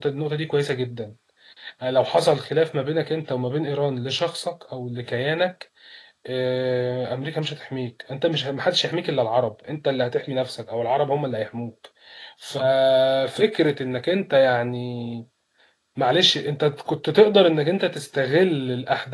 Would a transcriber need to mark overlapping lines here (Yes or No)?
No